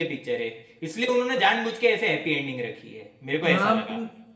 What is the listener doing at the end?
taking over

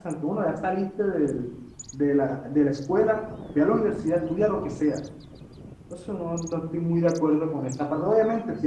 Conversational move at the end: listening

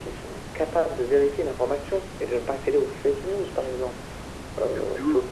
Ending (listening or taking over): listening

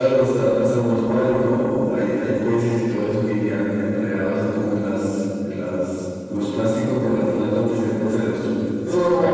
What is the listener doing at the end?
taking over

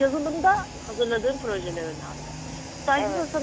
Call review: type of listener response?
listening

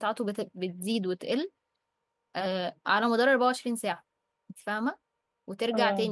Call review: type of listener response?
listening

